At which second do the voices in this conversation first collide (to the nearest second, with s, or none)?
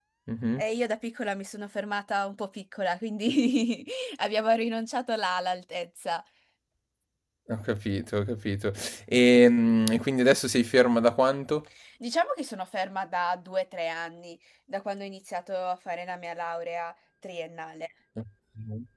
none